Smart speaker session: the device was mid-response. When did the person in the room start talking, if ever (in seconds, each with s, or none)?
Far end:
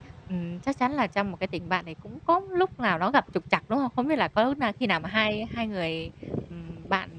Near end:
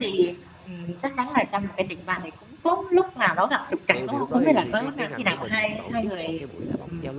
3.9 s